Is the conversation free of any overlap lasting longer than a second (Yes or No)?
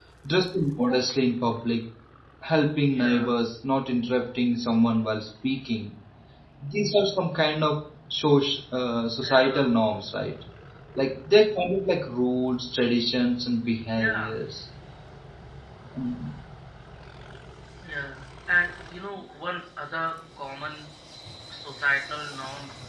Yes